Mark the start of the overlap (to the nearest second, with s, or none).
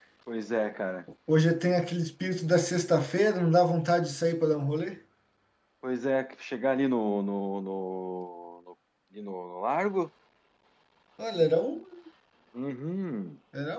none